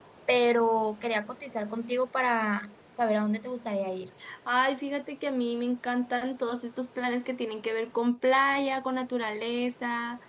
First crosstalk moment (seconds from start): none

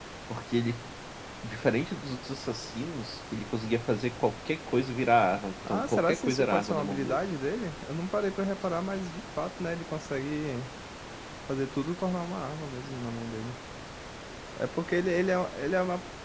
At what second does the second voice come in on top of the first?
5.6 s

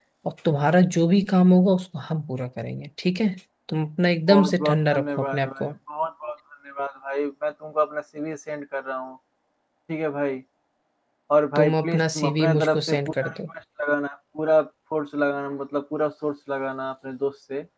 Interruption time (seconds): 4.3 s

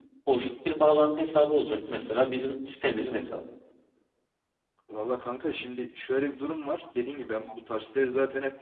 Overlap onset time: none

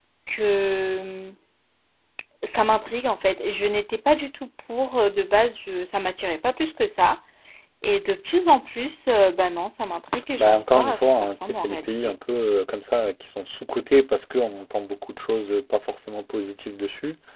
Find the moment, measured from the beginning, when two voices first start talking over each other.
10.4 s

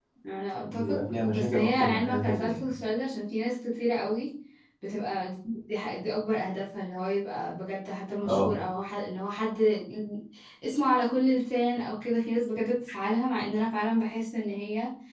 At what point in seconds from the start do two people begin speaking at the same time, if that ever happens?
0.6 s

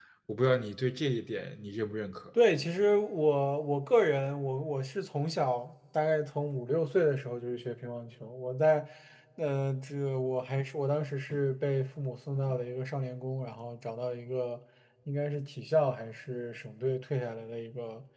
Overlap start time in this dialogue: none

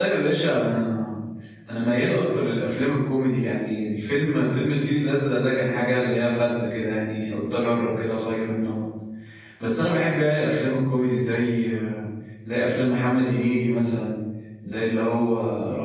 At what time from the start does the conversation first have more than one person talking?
none

